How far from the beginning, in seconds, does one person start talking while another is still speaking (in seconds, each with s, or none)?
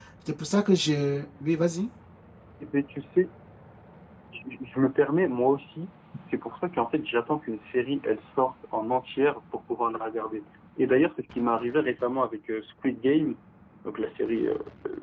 none